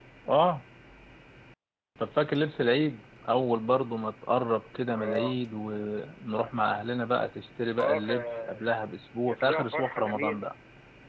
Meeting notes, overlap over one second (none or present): present